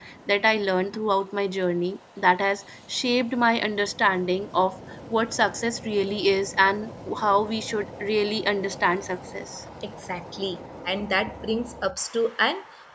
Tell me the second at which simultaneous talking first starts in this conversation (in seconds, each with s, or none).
none